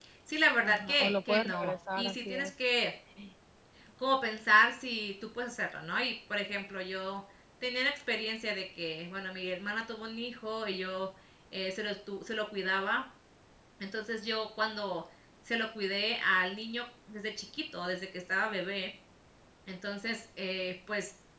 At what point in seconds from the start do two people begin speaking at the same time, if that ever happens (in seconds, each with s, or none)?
0.6 s